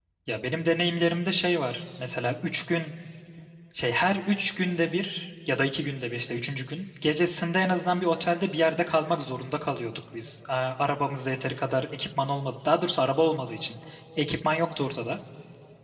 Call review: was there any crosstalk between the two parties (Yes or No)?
No